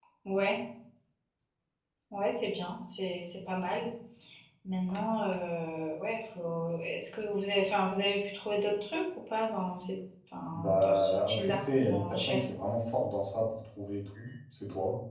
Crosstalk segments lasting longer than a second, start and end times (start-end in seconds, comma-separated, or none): 10.5-12.4